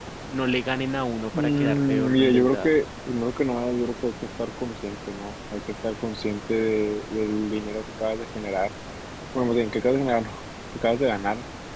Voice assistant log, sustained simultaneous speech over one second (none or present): present